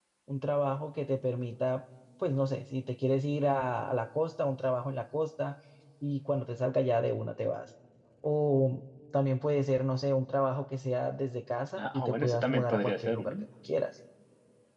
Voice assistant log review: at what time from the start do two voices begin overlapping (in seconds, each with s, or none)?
11.8 s